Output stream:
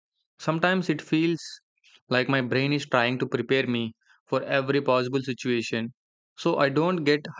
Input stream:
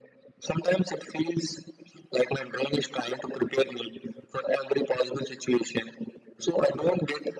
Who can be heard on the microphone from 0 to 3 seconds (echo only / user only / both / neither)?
echo only